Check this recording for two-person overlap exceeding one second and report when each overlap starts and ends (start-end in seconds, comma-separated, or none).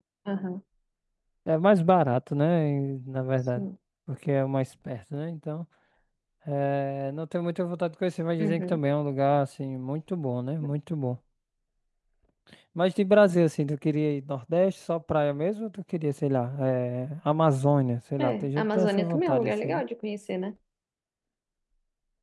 18.2-19.8